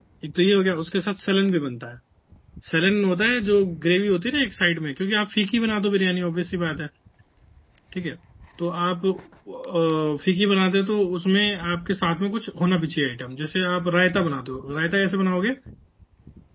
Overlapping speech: No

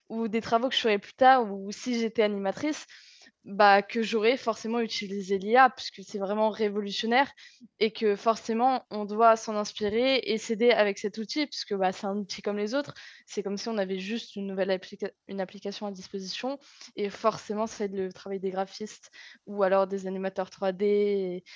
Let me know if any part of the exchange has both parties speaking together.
No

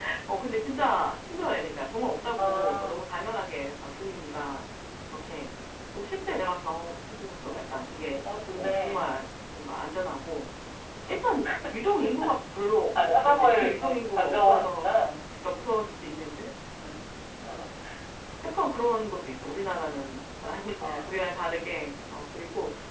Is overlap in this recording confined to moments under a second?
No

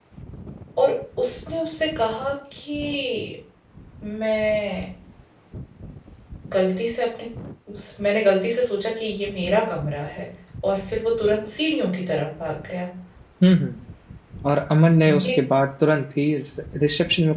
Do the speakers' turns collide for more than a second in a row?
No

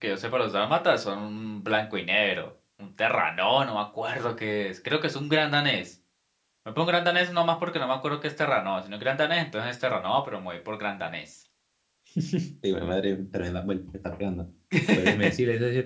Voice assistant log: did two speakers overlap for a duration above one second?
No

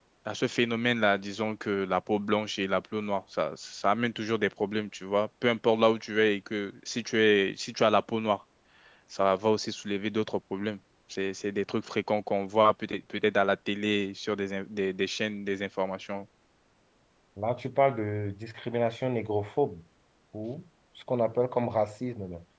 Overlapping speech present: No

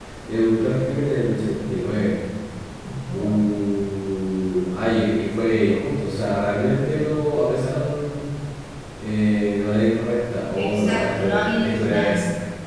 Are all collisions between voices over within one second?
No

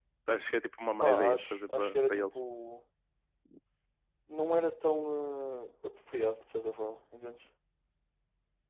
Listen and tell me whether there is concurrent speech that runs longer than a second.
Yes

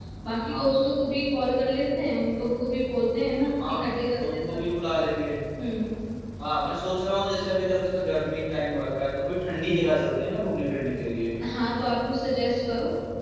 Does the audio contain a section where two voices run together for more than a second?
No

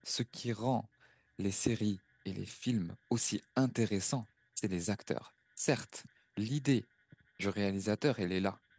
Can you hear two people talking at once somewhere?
No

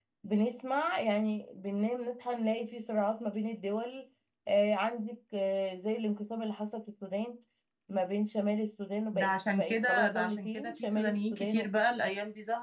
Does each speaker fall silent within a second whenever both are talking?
No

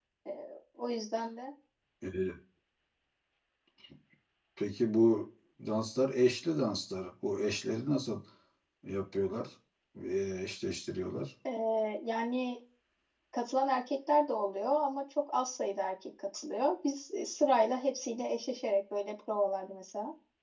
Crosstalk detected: No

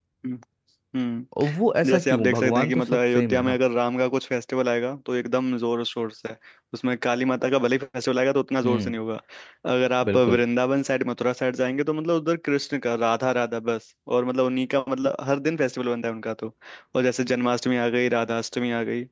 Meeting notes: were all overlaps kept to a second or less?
No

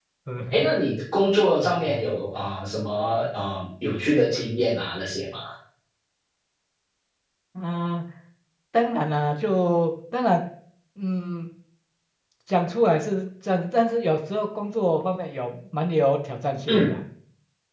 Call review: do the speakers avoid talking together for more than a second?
Yes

